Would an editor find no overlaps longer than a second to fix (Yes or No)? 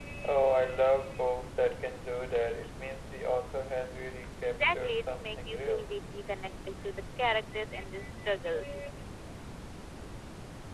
No